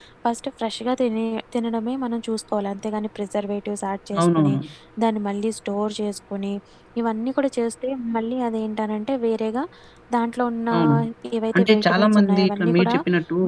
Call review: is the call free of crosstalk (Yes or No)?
No